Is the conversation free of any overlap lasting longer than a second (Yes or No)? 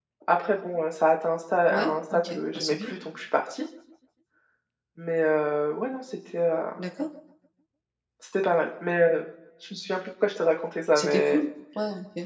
No